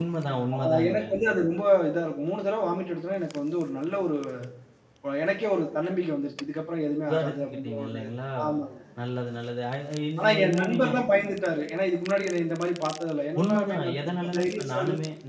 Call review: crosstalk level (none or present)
present